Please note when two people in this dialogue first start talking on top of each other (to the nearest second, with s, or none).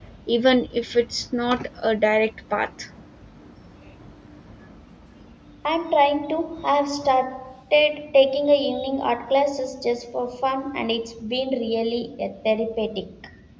none